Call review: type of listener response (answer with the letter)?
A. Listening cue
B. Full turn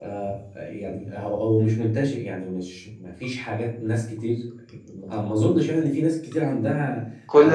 B